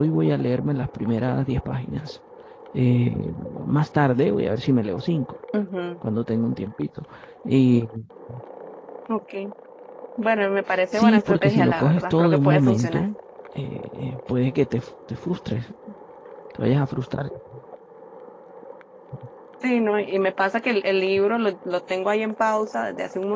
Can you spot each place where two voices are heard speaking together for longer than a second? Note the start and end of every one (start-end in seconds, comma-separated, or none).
10.9-13.1